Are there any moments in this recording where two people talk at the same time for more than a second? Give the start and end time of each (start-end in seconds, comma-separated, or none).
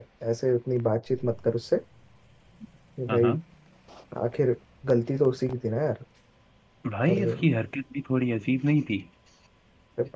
none